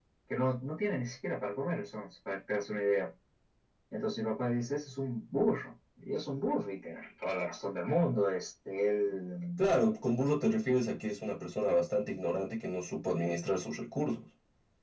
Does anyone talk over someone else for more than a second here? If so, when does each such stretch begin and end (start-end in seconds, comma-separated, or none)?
none